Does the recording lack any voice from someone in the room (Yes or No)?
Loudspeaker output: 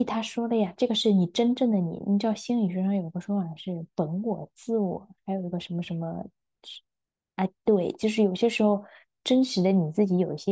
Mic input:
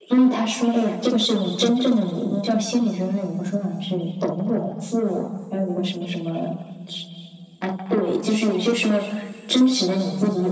Yes